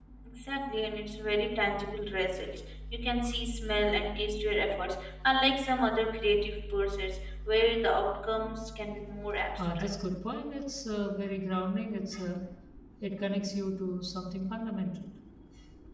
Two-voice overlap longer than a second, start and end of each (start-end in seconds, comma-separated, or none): none